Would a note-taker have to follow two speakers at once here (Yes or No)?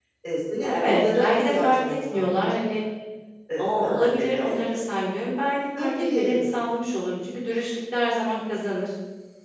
Yes